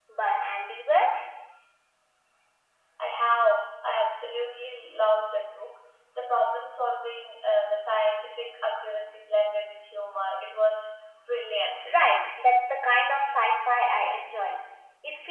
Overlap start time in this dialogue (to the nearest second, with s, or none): none